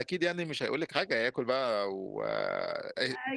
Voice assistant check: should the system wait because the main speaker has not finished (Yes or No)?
No